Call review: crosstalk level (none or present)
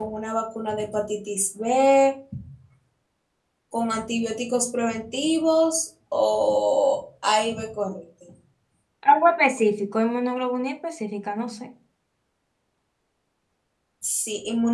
none